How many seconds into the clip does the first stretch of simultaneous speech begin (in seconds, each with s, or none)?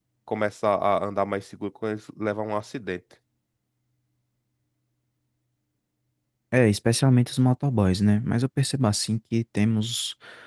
none